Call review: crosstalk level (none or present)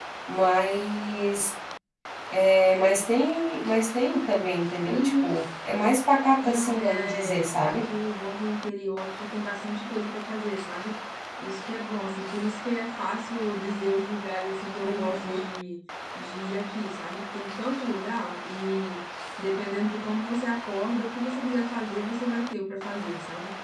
present